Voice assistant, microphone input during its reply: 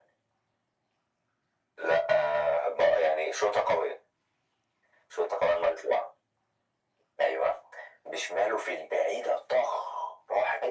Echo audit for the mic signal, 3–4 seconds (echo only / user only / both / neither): echo only